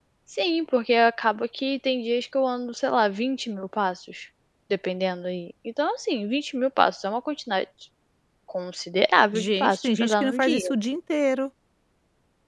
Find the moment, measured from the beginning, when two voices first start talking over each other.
9 s

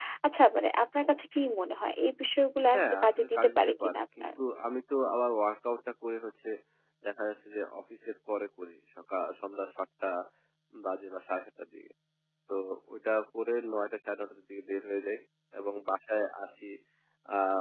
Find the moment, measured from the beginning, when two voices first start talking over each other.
3 s

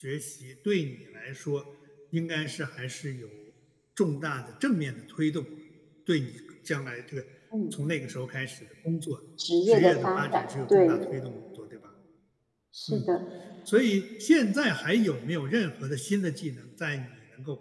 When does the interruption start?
10 s

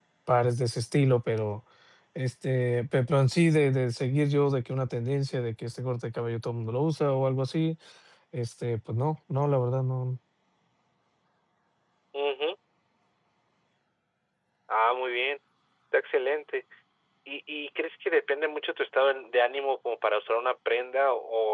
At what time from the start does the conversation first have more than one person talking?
none

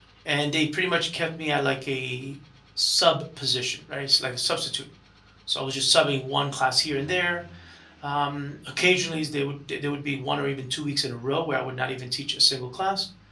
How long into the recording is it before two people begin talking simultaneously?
none

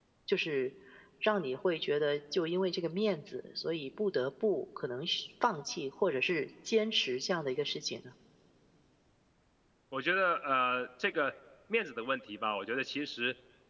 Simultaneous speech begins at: none

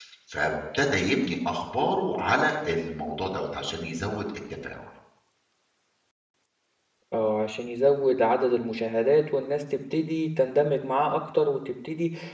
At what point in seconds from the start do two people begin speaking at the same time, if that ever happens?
none

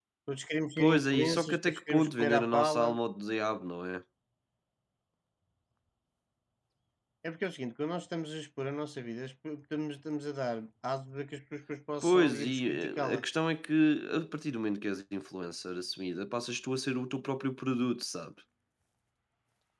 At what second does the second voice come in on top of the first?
1 s

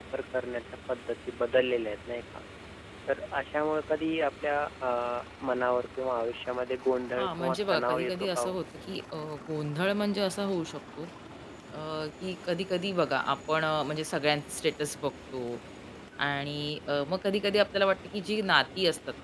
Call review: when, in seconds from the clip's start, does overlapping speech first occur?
7 s

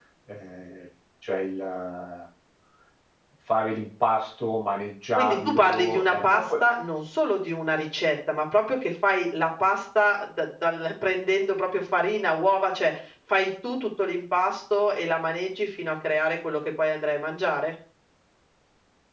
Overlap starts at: 5 s

